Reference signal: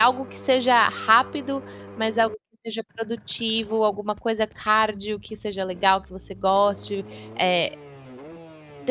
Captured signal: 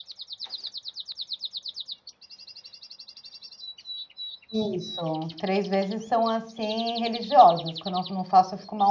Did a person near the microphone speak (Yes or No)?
Yes